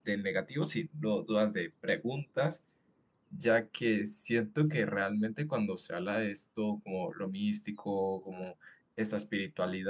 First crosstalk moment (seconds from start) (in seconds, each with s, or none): none